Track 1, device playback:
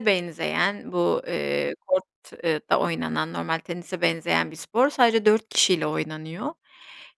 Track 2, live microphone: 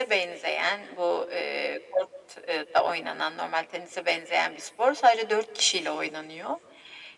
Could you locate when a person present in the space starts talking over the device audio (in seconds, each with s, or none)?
none